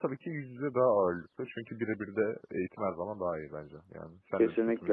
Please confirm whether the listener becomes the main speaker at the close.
Yes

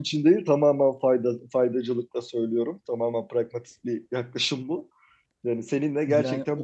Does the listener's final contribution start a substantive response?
No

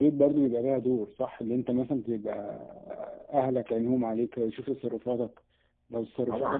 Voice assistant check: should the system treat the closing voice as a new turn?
Yes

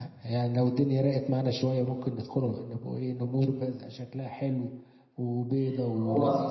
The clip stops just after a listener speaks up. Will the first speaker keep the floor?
No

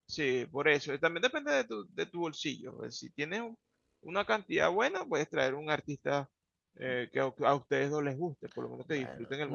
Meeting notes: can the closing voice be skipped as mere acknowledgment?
No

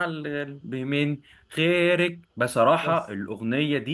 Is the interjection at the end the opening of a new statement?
No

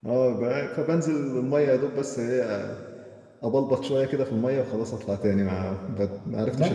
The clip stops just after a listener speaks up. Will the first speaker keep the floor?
No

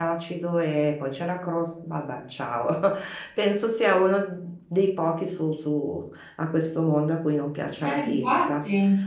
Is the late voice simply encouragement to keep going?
Yes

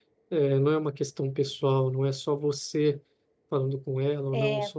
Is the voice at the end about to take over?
No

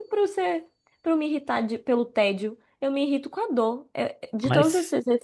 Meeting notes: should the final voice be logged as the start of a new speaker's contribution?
No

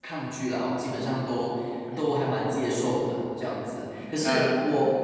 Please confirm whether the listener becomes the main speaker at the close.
No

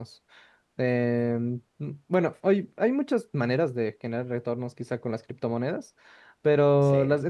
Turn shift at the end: No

